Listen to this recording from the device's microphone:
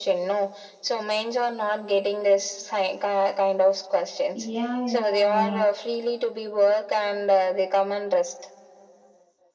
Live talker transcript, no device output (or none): yeah,